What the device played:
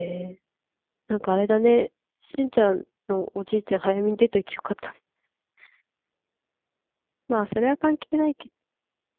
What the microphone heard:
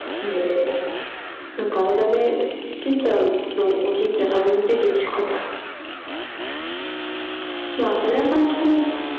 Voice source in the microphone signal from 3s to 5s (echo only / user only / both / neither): echo only